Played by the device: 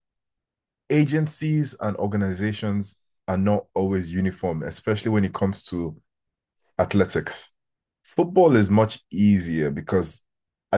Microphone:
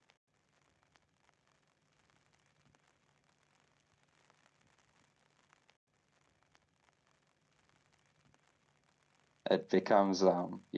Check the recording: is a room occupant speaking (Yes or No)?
Yes